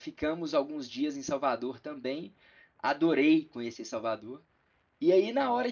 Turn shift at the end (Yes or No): No